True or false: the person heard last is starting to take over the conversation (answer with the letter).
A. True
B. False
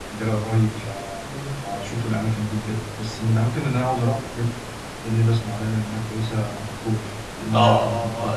A